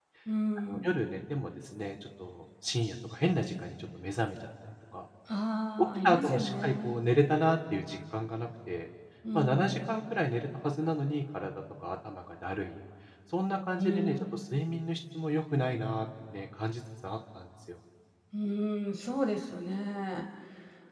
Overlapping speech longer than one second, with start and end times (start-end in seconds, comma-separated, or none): 5.8-7.0